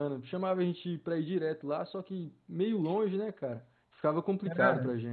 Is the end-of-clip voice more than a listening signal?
Yes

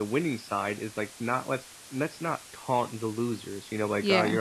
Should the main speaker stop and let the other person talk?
No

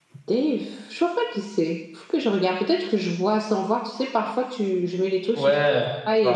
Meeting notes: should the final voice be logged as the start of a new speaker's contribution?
Yes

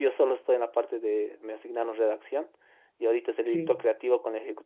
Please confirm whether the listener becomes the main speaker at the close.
No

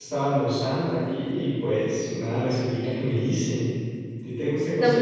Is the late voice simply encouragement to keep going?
No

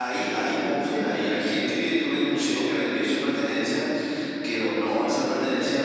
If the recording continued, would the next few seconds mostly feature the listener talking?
No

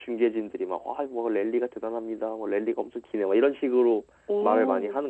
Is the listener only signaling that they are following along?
No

